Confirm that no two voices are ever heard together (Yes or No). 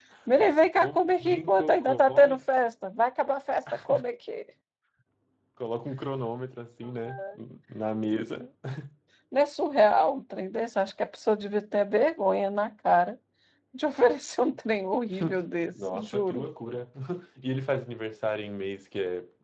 No